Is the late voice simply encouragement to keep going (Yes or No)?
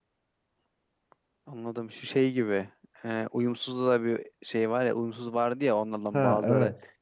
Yes